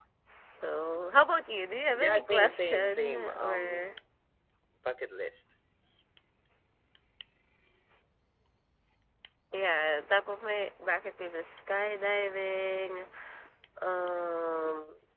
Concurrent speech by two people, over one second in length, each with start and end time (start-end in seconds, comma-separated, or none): 1.9-3.9